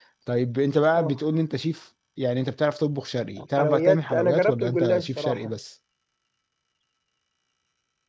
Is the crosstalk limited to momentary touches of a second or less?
No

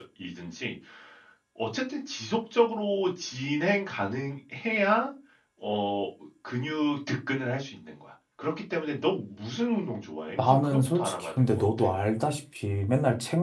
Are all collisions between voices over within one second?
No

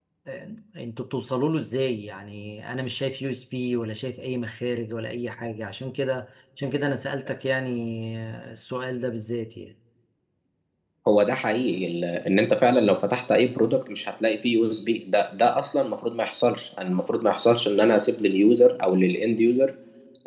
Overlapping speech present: No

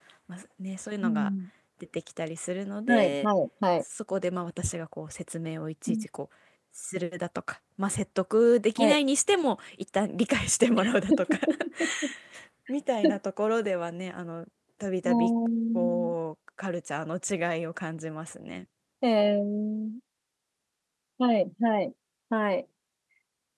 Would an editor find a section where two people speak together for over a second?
No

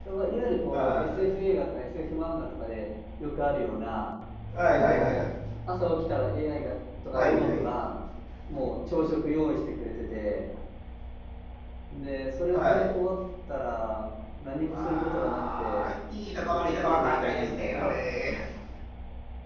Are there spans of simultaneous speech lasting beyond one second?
Yes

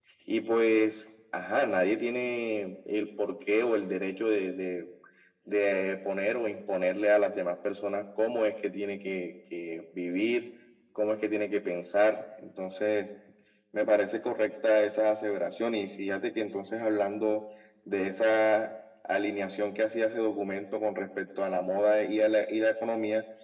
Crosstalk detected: No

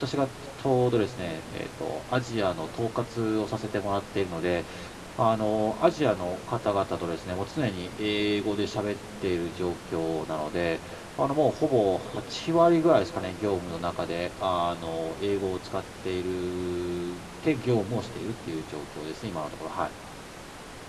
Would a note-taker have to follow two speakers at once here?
No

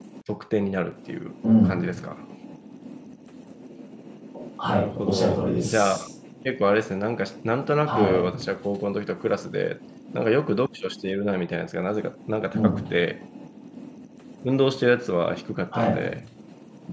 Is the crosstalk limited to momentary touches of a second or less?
No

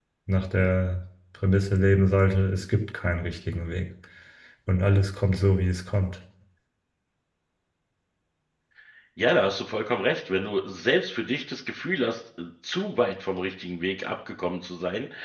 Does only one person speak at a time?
Yes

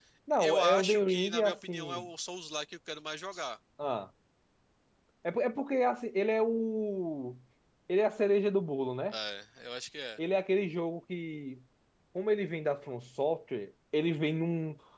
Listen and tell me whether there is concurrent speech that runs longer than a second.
Yes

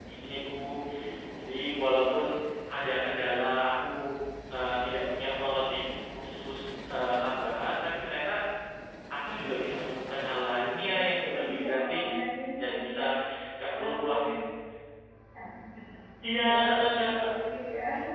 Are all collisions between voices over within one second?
No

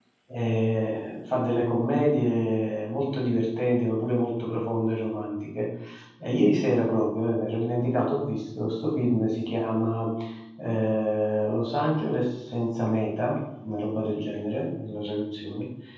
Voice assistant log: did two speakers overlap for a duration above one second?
No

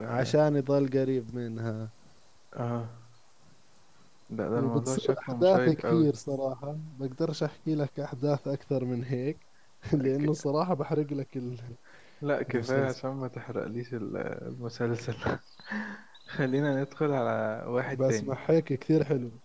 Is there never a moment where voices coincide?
No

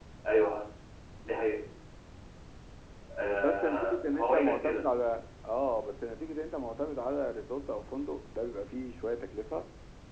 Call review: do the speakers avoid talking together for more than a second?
No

